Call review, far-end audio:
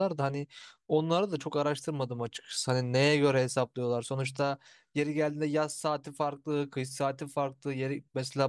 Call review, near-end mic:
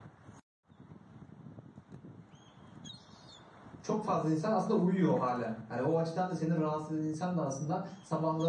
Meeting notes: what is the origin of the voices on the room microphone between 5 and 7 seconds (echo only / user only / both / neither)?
user only